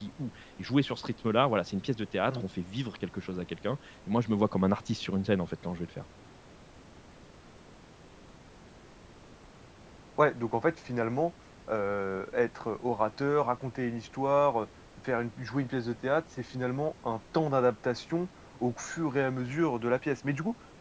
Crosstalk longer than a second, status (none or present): none